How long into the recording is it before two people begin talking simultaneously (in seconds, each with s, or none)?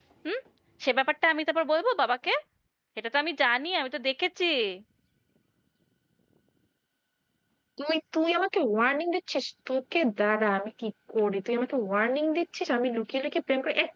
none